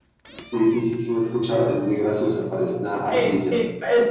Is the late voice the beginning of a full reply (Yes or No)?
Yes